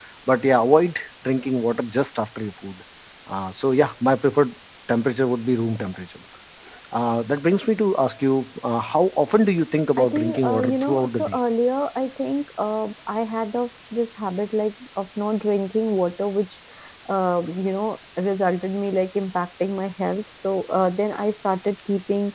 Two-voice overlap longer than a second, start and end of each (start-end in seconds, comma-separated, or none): 10.0-11.4